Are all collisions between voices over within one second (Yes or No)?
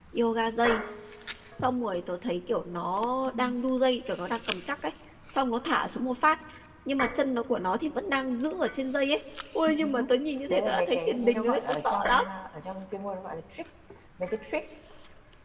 No